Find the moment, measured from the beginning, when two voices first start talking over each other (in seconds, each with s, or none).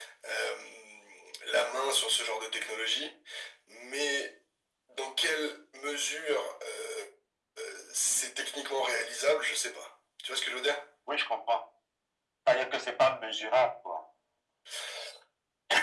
none